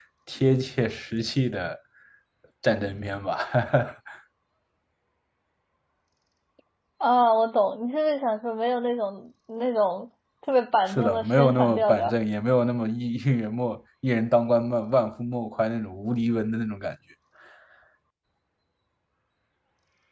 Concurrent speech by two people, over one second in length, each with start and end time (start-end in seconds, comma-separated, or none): 10.9-12.1